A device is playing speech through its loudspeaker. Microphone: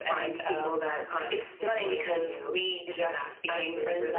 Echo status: present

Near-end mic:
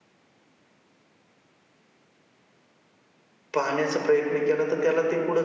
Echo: none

